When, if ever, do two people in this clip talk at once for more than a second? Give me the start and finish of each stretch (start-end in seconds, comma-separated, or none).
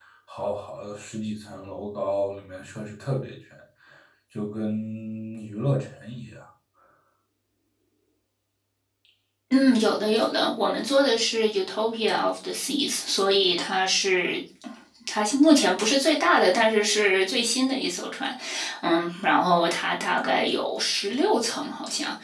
none